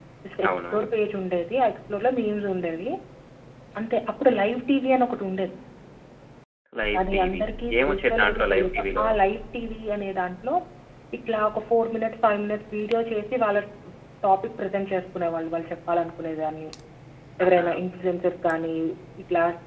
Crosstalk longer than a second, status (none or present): present